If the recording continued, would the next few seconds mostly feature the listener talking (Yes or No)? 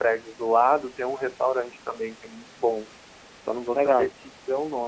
No